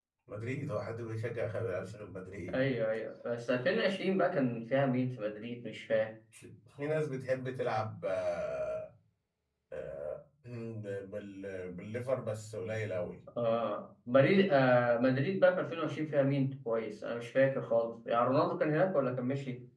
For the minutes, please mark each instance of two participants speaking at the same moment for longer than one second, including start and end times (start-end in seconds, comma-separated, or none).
none